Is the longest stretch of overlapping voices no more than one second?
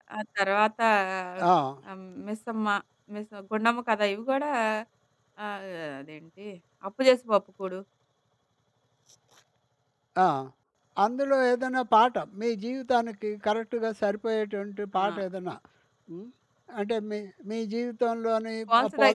Yes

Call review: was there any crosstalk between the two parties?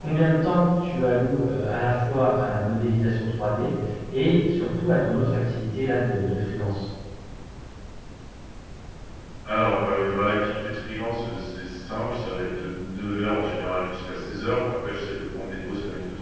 No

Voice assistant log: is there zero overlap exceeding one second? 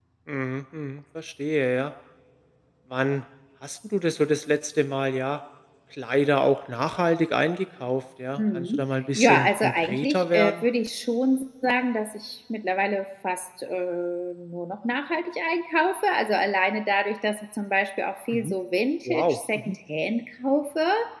No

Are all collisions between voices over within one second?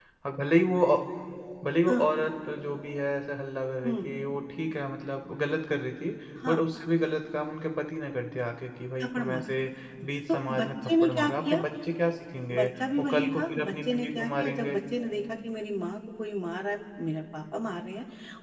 No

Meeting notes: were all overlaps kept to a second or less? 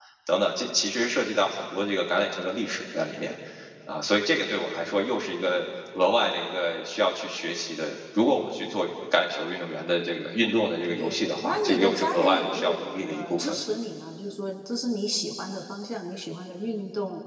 No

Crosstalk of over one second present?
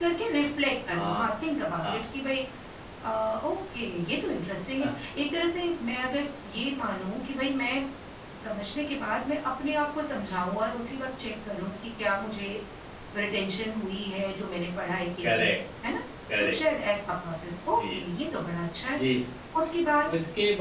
No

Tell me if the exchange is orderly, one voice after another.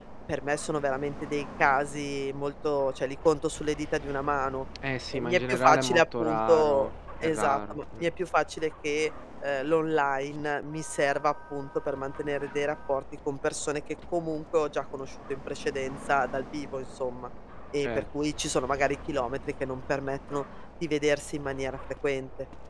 No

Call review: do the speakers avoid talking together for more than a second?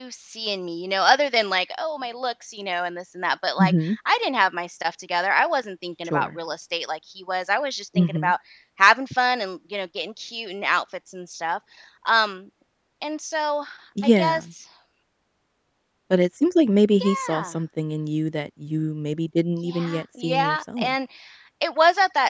No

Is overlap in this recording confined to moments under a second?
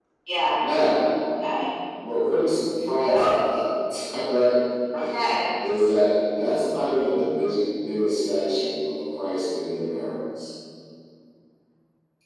Yes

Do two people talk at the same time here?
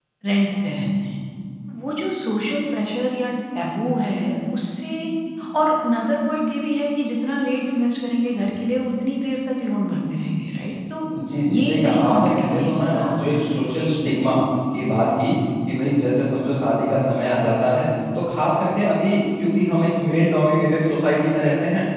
Yes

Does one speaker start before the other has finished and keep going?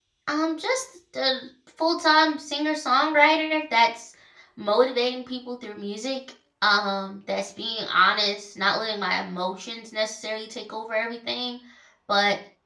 No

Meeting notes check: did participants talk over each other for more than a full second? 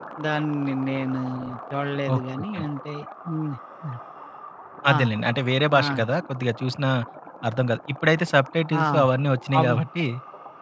No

